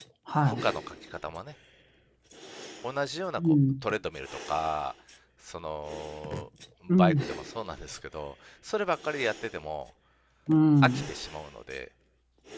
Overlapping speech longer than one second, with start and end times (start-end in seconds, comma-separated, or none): none